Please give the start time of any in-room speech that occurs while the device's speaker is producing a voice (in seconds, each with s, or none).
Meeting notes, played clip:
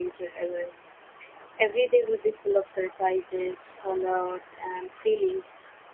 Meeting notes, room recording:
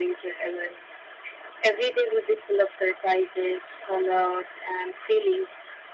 none